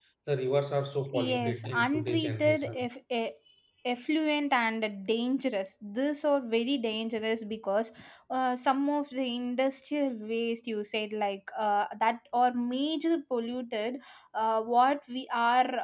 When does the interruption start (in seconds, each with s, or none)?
1.1 s